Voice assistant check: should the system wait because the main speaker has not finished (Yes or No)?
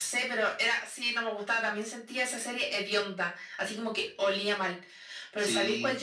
Yes